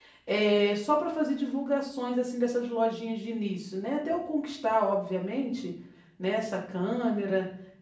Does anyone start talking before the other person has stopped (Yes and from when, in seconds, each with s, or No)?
No